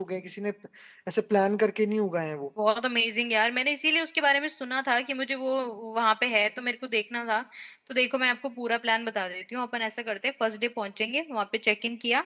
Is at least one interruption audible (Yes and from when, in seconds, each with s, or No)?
No